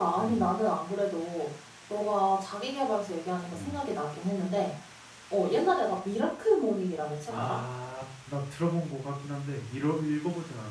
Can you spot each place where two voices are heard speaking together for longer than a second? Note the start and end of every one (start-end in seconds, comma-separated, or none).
none